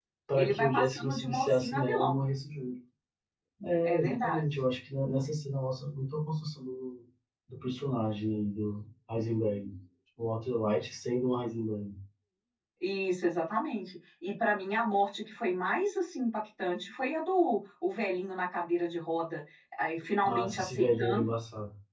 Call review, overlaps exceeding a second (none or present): present